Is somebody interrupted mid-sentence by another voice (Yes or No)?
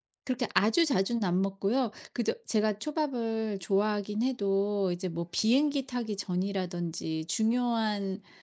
No